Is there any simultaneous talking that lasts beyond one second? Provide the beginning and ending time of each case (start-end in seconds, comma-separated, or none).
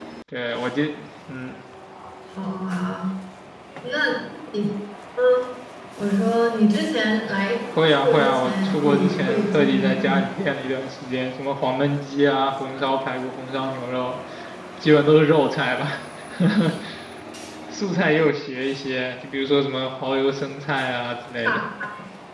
7.9-10.2